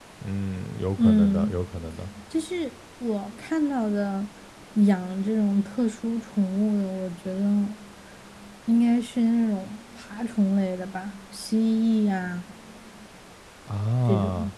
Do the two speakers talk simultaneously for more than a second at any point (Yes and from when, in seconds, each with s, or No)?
No